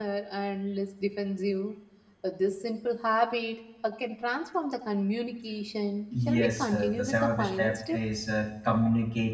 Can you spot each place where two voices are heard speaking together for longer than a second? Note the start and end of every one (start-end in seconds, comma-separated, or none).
6.2-8.0